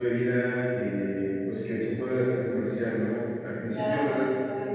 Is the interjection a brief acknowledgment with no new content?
Yes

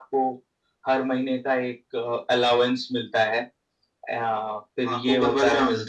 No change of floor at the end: No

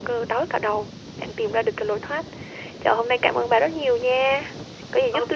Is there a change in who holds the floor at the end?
Yes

